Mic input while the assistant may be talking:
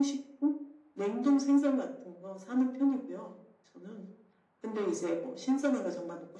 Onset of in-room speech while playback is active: none

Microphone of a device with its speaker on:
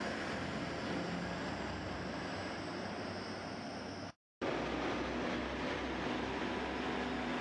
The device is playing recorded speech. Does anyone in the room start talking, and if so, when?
none

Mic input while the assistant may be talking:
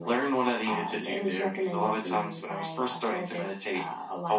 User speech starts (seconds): none

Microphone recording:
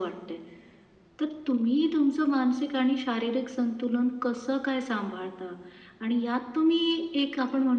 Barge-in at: none

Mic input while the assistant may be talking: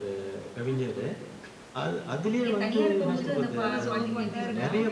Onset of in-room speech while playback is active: 2 s

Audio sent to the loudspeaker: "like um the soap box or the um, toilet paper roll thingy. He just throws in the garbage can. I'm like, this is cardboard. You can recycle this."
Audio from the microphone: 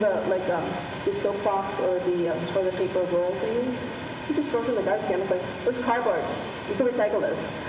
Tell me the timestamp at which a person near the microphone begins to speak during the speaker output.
none

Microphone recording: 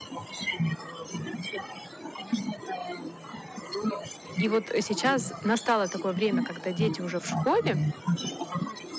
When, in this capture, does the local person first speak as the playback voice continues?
4 s

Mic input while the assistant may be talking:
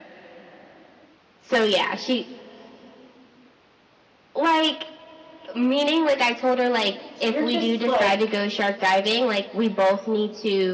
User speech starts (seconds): 7 s

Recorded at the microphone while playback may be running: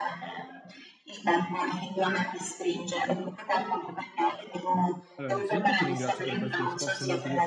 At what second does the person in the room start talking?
5 s

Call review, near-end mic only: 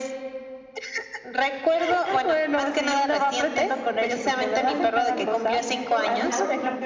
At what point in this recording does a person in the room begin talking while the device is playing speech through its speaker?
4 s

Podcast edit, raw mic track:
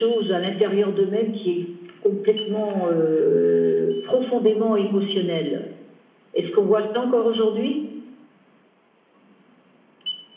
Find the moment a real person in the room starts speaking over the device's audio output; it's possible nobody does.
none

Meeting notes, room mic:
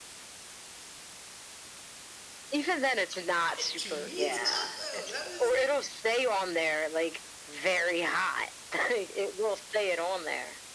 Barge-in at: 3 s

